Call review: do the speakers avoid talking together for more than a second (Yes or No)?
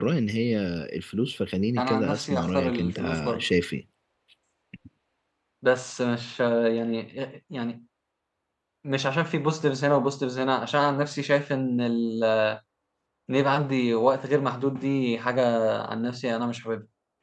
No